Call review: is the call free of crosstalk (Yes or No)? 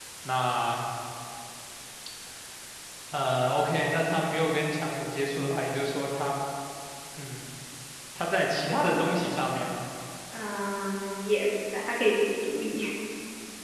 Yes